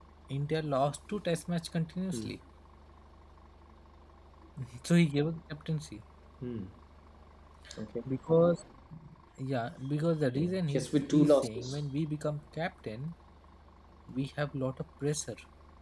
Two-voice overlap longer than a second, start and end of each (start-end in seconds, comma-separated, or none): 10.3-11.8